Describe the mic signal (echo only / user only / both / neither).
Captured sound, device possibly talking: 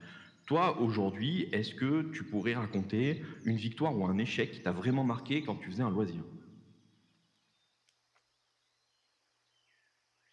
echo only